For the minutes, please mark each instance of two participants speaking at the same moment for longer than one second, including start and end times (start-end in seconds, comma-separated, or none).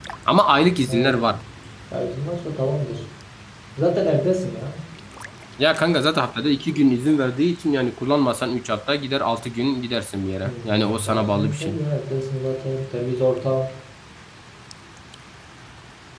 10.4-11.8